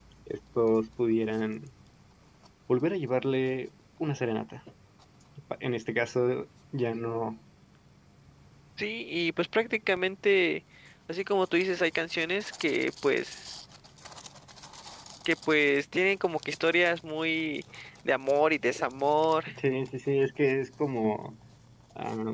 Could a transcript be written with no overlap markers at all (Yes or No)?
Yes